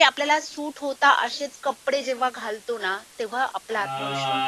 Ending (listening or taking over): taking over